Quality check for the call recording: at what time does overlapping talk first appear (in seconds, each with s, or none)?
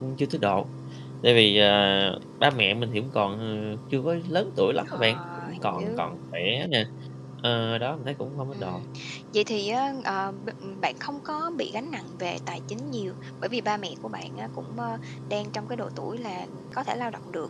4.9 s